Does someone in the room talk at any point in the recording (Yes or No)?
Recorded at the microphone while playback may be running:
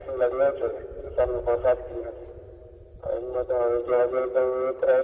No